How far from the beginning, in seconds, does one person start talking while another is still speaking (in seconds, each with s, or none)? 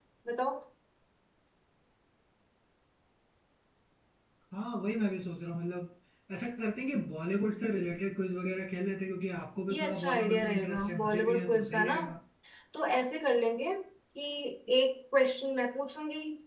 9.7 s